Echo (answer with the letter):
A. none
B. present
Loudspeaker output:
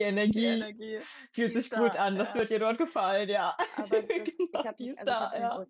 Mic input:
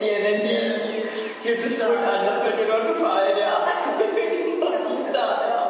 B